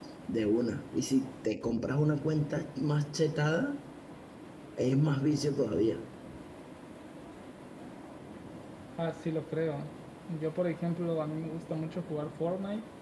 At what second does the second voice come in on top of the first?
none

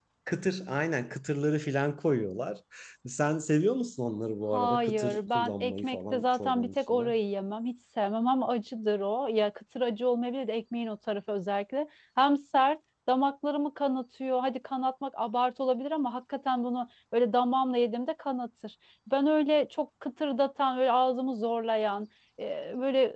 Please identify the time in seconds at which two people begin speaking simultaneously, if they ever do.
5 s

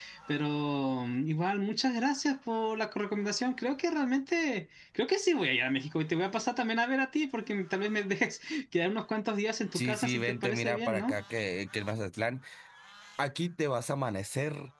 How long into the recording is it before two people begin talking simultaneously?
10 s

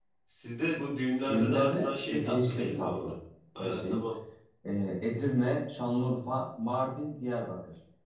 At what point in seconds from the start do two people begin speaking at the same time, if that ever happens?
1 s

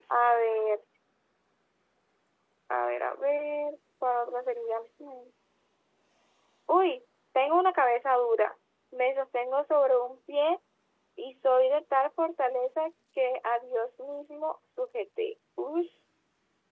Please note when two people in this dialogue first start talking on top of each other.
none

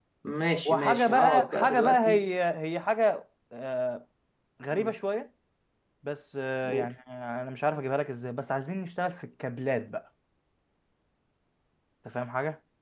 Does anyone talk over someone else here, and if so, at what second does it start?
1 s

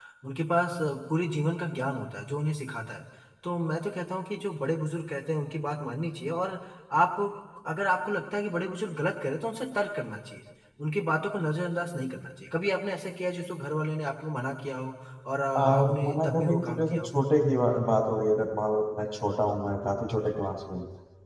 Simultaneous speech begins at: 16 s

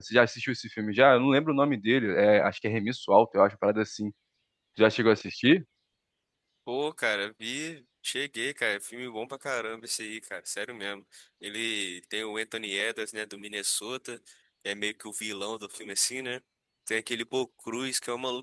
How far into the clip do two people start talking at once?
none

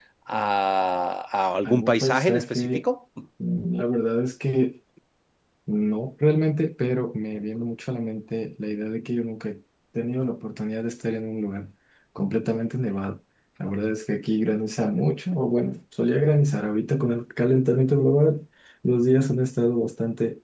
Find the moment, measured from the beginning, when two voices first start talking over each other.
2 s

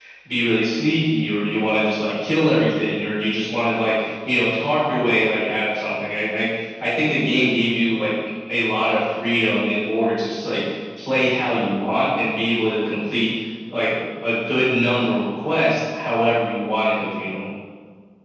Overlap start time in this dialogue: none

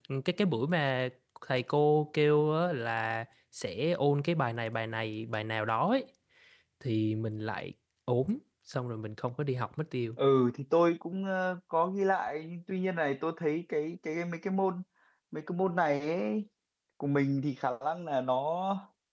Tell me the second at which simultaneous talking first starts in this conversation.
none

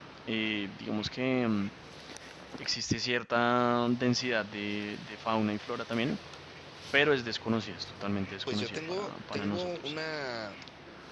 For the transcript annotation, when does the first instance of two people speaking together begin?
8 s

